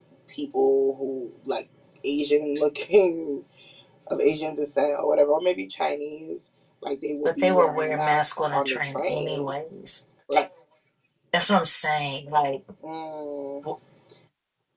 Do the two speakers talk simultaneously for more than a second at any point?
Yes, from 7.2 s

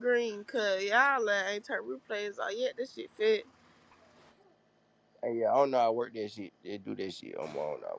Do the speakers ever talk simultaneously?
No

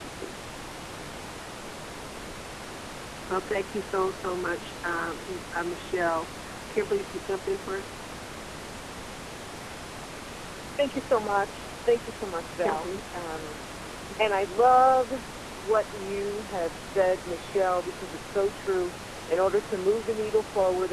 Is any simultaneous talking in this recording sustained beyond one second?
No

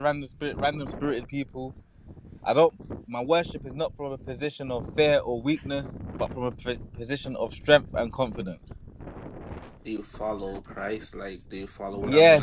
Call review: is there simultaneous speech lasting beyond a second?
No

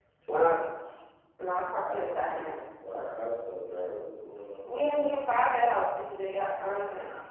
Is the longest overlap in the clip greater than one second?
No

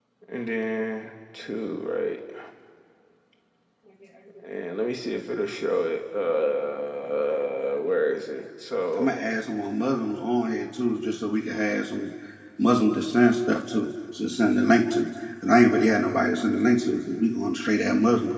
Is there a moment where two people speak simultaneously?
No

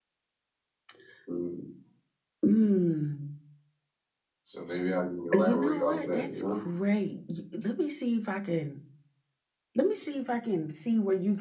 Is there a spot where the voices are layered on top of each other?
Yes, from 5.3 s

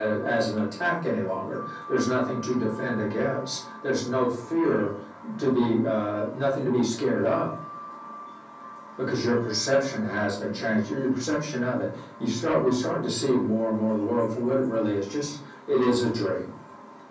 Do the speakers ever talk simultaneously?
No

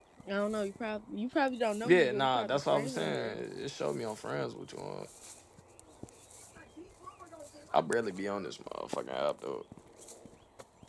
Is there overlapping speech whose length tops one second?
Yes, from 1.8 s

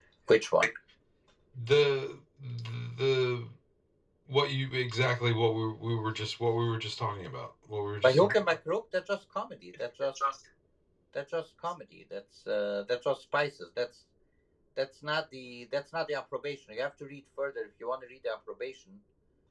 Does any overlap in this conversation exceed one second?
No

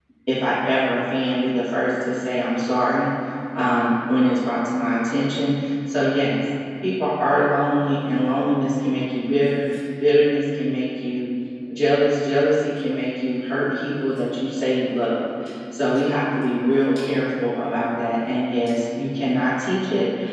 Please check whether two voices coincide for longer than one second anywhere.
No

